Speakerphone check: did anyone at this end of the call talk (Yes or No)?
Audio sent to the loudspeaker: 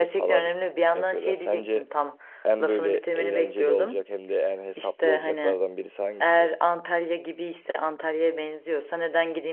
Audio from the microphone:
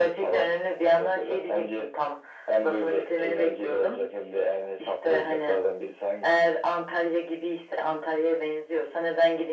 No